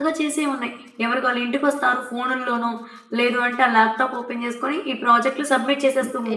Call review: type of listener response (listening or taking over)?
taking over